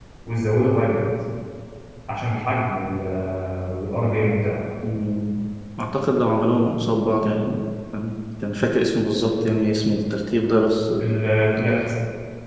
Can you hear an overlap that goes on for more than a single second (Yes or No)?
No